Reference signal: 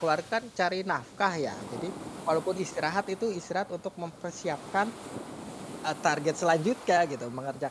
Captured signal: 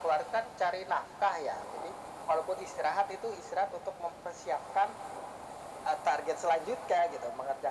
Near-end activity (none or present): none